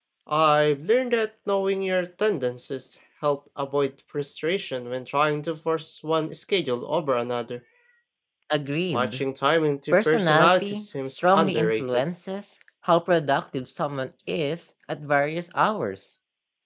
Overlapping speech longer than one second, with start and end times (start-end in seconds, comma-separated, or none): 9.9-12.0